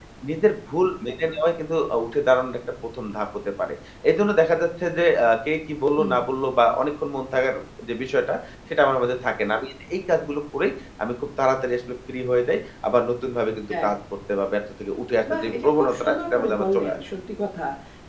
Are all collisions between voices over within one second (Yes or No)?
No